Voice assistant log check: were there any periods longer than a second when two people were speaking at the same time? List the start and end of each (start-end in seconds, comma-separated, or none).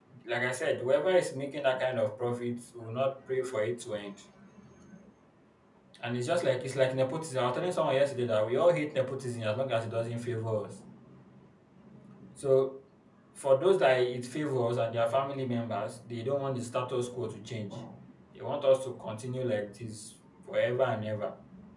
none